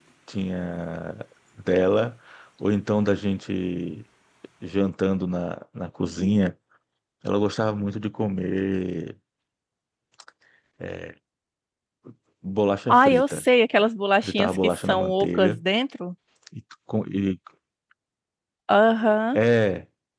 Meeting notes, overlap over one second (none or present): present